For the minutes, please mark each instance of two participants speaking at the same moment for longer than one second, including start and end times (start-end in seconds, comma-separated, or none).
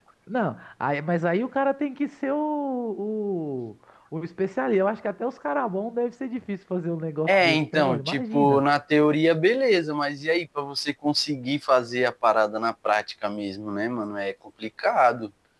7.3-8.6